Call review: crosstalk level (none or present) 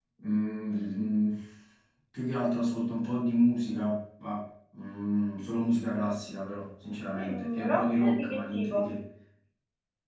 present